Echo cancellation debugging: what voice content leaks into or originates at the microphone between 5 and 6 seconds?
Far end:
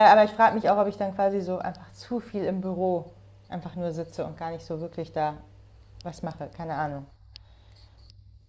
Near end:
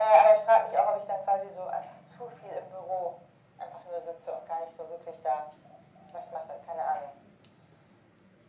echo only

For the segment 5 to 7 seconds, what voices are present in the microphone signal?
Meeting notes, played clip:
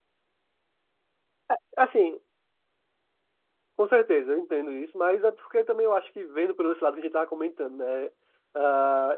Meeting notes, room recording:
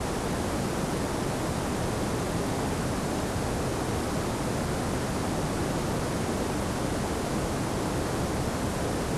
neither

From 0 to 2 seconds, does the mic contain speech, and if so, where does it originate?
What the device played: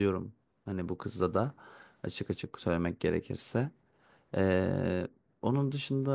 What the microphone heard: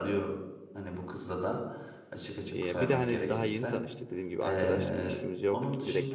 echo only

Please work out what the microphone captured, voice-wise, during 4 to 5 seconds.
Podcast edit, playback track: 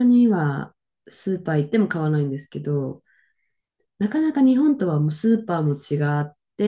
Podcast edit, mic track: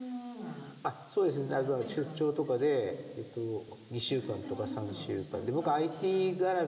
both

